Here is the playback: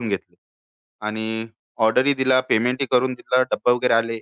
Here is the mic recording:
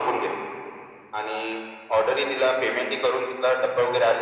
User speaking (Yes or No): No